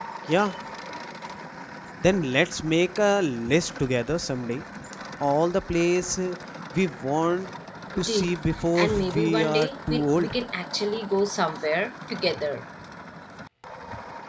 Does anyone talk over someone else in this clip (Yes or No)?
Yes